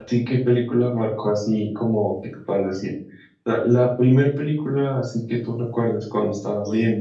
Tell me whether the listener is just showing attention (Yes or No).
No